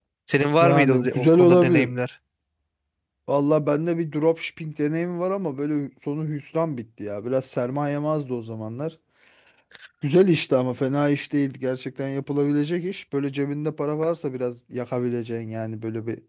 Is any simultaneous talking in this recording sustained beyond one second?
Yes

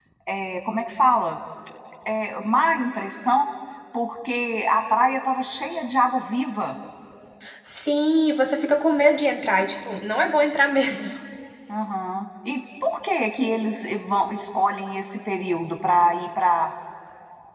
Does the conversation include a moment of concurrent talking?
No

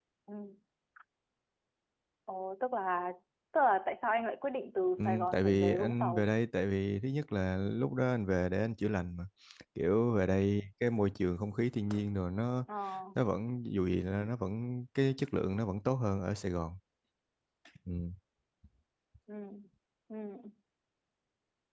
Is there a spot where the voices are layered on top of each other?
Yes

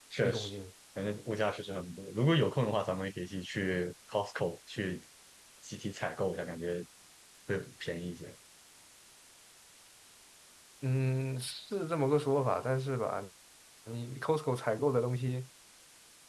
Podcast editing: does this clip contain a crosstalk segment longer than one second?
No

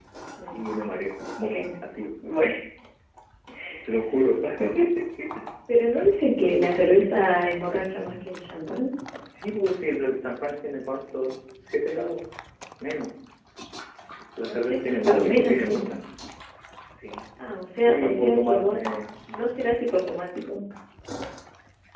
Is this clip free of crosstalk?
No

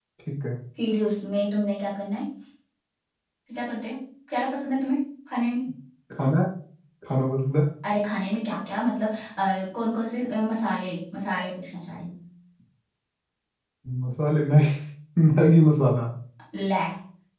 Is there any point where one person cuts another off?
No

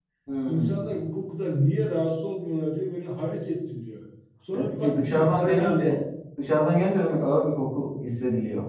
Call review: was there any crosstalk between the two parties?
Yes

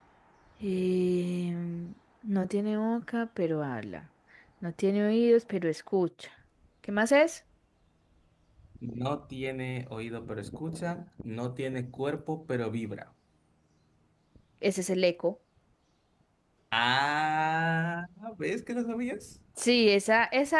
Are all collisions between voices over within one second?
Yes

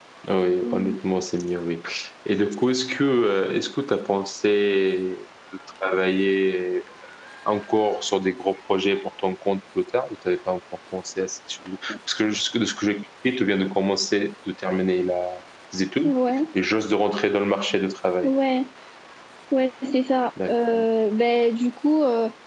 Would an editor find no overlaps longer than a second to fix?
Yes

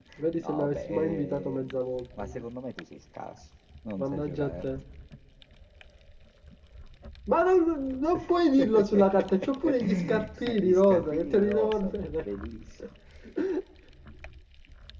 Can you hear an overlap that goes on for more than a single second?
Yes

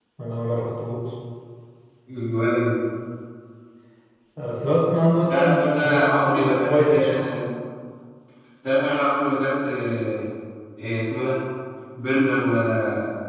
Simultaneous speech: Yes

